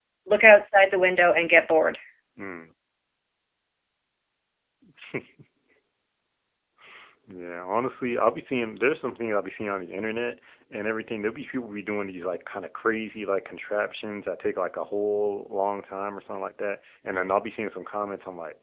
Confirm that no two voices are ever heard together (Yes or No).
Yes